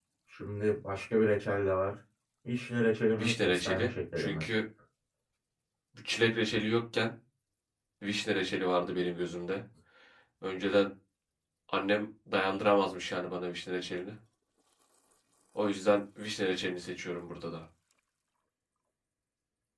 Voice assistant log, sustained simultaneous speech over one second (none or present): present